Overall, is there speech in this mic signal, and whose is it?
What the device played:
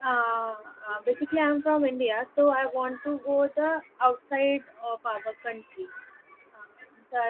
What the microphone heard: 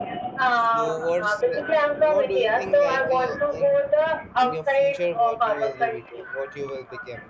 both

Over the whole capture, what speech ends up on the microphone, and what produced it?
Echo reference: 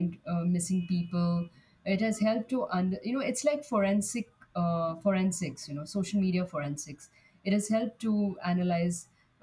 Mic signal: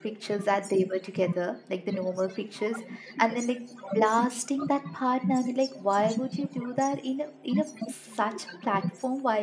both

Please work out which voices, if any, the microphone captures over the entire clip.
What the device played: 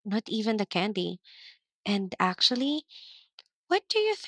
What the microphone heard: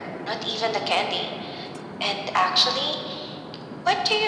echo only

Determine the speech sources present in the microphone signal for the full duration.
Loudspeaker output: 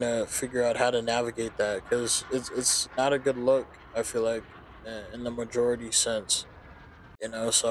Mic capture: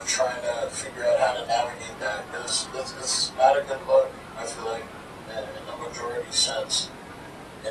echo only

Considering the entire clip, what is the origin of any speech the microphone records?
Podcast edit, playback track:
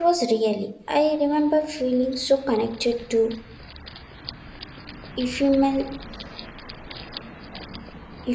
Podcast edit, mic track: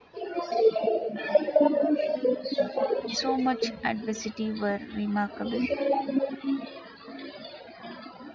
both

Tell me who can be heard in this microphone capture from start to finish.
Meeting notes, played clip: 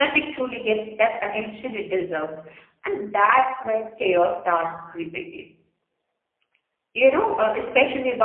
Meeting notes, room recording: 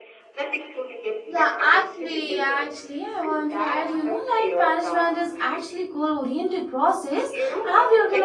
both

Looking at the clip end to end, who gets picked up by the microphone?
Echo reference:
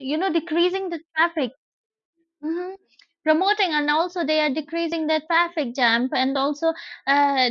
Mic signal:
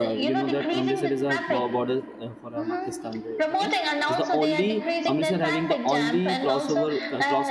both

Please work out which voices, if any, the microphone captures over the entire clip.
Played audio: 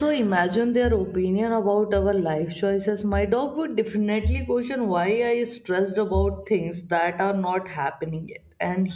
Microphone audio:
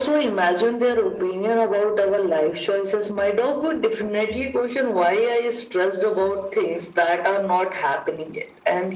echo only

